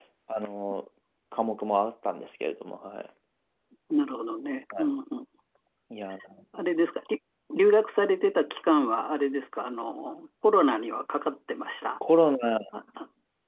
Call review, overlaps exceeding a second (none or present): none